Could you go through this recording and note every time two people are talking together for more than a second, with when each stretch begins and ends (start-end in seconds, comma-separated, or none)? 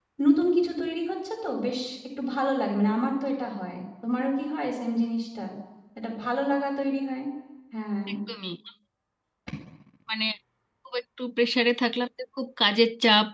none